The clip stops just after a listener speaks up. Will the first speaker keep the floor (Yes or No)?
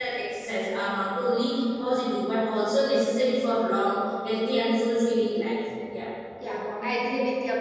No